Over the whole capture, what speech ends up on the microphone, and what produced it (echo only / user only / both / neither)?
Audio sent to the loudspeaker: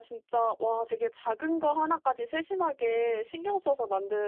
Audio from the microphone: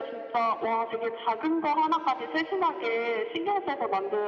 echo only